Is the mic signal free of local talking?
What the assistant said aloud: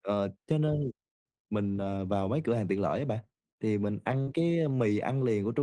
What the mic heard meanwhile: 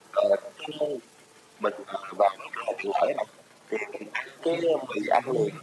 No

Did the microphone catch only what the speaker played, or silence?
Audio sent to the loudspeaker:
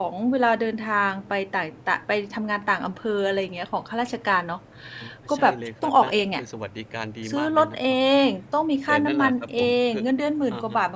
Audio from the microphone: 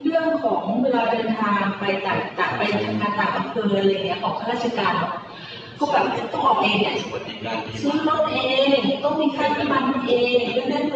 No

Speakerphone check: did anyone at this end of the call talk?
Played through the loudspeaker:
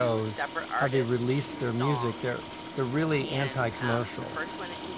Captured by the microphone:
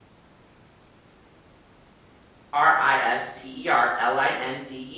Yes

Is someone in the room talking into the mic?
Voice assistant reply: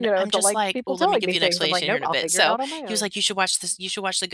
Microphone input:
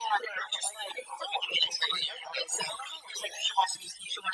No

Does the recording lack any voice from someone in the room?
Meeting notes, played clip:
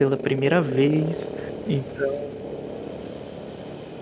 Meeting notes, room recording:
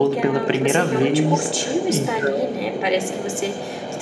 No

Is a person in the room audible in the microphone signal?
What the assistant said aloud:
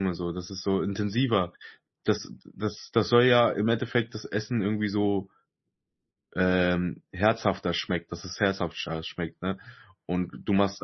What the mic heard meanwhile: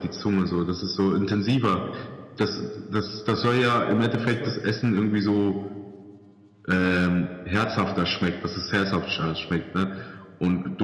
Yes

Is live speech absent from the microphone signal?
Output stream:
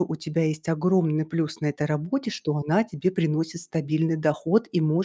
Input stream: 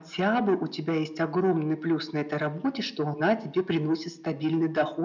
Yes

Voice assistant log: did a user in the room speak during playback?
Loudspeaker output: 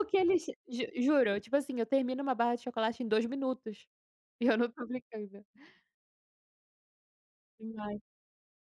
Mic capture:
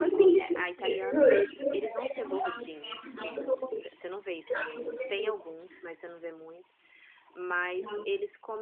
Yes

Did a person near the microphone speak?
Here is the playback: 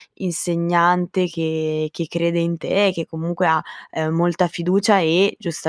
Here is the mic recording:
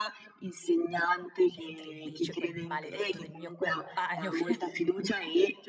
Yes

